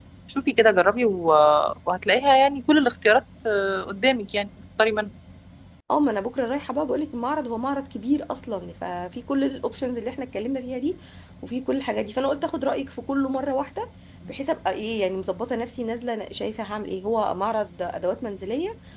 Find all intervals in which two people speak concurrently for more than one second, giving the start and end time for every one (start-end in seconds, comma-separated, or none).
none